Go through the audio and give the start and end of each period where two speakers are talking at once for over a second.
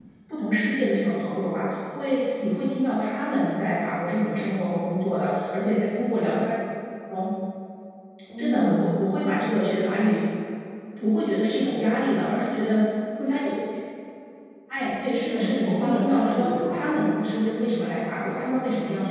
15.2-16.9

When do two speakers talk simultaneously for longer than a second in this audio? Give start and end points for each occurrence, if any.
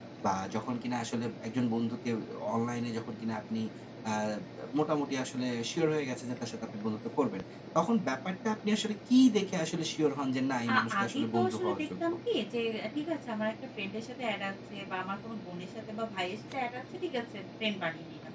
10.7-11.9

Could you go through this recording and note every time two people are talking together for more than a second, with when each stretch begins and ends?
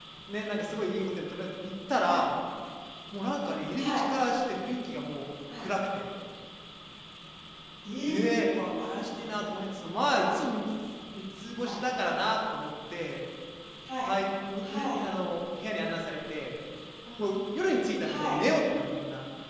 8.1-9.4

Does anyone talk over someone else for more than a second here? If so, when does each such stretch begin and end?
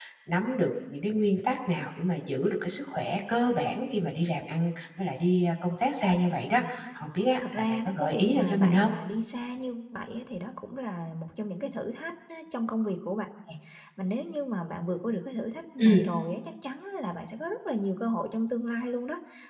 7.4-8.9

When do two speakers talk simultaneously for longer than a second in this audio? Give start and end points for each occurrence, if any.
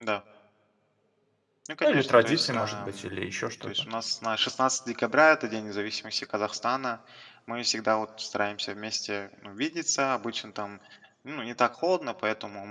1.8-3.1

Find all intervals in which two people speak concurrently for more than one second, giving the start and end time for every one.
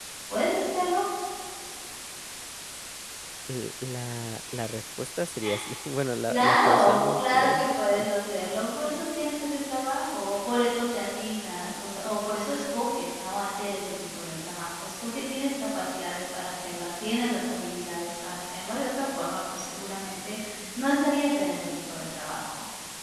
6.3-8.0

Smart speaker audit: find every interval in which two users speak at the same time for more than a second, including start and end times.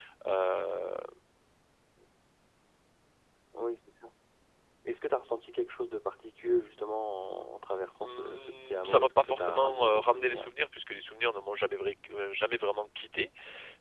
8.0-10.5

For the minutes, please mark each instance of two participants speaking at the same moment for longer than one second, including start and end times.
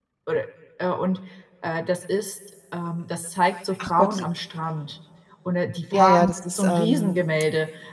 5.9-7.2

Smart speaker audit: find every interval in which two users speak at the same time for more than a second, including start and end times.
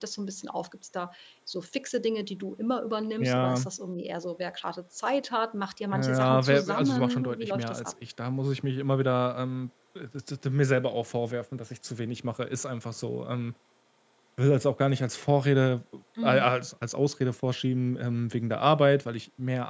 5.9-7.9

